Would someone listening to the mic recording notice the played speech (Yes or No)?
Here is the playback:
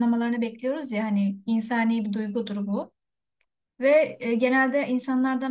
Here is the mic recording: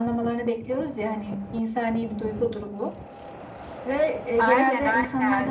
Yes